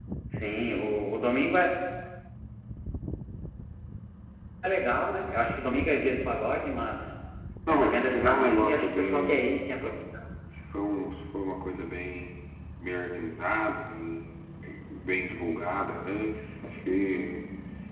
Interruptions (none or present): present